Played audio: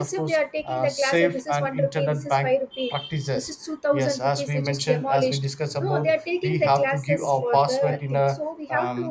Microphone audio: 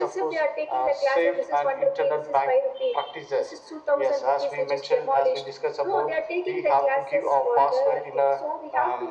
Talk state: echo only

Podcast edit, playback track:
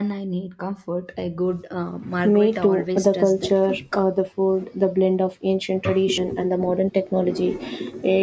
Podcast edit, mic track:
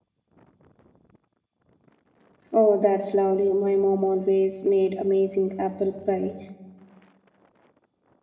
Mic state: user only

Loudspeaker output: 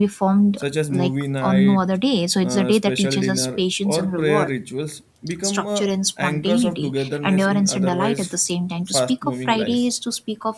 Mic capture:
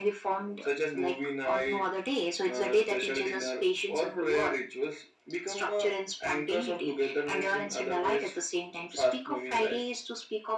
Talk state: echo only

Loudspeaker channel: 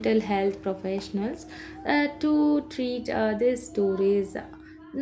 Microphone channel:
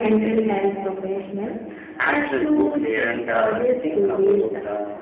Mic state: both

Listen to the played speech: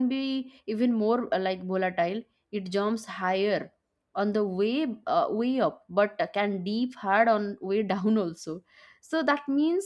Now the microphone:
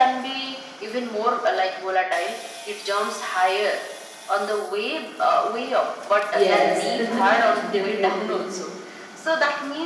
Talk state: both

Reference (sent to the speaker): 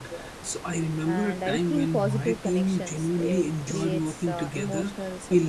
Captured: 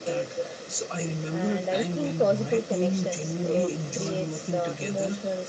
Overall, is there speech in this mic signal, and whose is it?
echo only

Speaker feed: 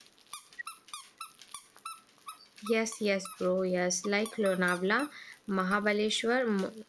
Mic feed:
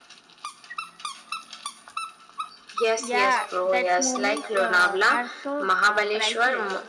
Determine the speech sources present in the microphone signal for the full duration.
both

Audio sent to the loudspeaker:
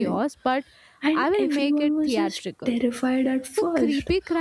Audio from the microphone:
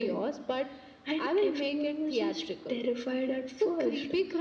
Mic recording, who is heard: echo only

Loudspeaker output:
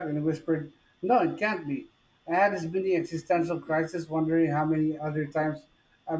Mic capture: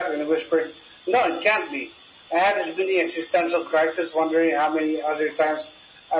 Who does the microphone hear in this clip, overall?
echo only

